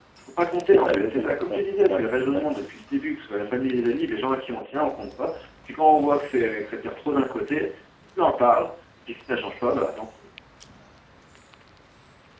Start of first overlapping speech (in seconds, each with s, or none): 0.7 s